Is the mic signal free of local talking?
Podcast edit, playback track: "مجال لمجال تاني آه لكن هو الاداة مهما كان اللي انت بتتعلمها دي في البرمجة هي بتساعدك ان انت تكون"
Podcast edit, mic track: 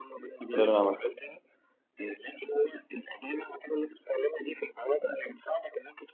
No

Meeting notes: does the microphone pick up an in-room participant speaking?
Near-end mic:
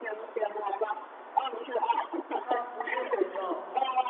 Yes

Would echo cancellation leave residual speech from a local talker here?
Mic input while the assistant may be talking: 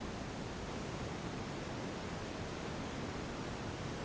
No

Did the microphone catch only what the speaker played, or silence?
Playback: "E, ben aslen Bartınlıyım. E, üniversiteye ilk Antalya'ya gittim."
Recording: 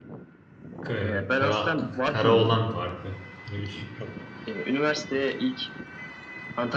No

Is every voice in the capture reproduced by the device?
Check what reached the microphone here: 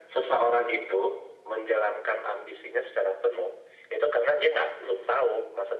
Yes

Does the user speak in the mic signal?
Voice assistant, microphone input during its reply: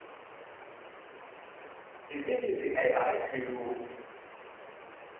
Yes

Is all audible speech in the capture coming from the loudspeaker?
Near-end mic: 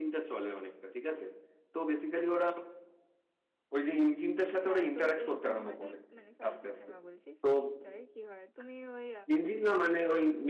No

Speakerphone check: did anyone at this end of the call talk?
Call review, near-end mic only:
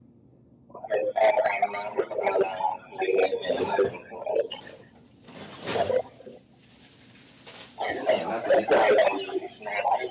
Yes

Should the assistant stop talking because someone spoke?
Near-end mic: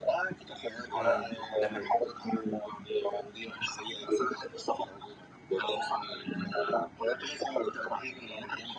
Yes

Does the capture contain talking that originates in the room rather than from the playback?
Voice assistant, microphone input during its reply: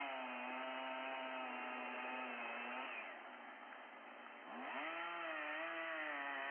No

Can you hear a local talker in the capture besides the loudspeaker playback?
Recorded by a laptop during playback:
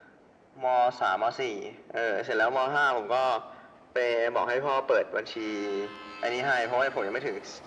No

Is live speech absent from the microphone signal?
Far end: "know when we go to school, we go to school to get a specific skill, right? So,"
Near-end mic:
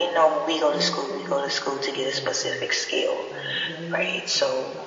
No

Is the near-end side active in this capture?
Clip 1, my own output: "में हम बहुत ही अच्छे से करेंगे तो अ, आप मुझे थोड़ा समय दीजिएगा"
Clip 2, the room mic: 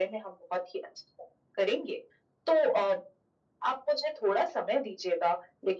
No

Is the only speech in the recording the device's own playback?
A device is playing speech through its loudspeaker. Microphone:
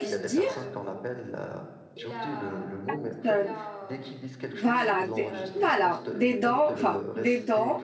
No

